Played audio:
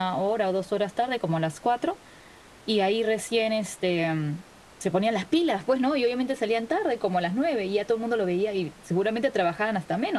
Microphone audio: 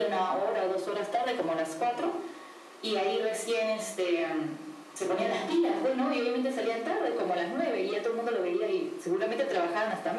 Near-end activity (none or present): none